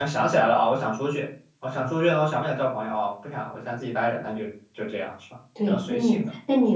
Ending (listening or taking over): taking over